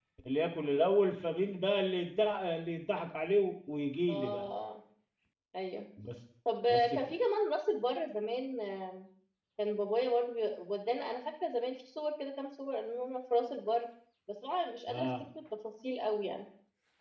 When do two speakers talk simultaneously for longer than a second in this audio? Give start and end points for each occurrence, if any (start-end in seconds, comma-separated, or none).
none